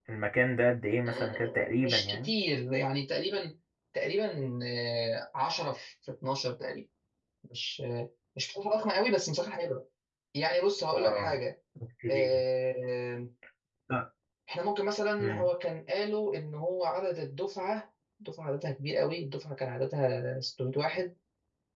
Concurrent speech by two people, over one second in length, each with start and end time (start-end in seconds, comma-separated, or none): 1.1-2.3